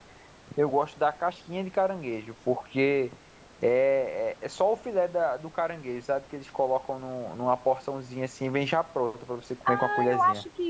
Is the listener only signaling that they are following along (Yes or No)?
No